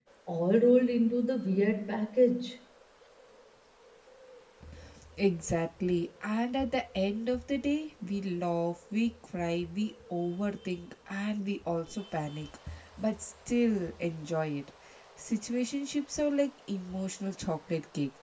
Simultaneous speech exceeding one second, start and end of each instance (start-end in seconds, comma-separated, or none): none